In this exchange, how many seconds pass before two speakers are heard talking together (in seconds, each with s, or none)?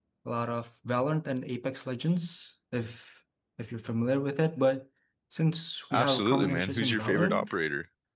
5.9 s